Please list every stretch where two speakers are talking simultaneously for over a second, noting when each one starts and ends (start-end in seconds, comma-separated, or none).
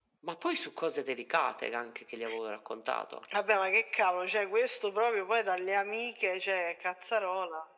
none